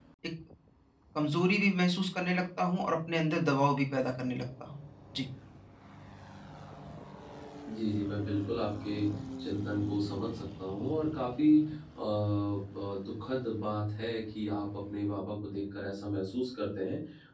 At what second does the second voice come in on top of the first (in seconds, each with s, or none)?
none